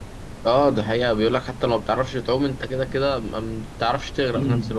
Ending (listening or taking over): taking over